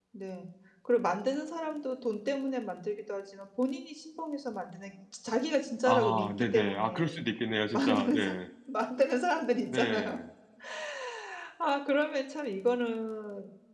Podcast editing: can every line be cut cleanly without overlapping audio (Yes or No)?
No